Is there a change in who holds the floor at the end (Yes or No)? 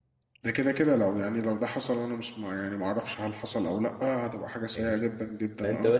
Yes